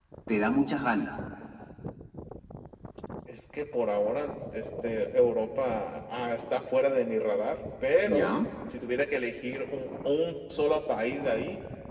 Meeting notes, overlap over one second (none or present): none